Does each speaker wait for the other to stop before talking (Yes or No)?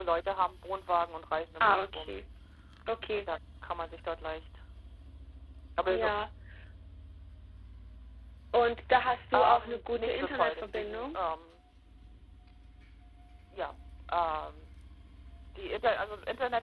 No